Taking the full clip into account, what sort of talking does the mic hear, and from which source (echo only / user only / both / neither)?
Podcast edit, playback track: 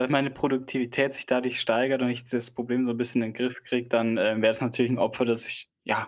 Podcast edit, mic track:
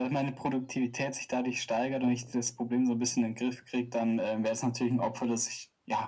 echo only